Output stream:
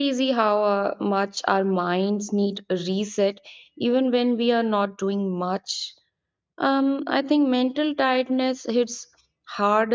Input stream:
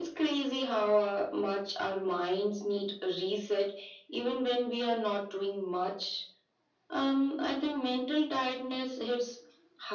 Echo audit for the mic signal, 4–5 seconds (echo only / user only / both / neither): echo only